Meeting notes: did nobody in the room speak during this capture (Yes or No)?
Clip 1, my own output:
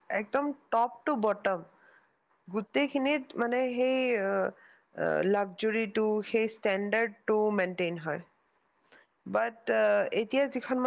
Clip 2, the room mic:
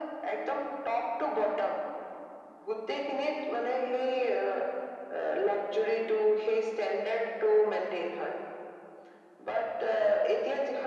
Yes